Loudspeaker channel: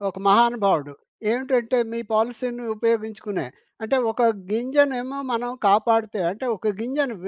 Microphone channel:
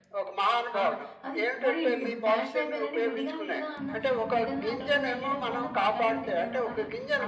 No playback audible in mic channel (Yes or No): No